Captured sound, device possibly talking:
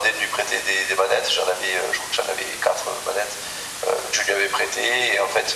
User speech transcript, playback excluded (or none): none